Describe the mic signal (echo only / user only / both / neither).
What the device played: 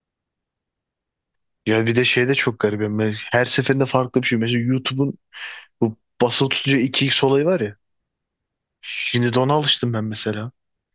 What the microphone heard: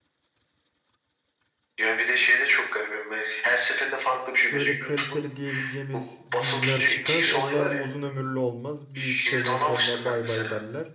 both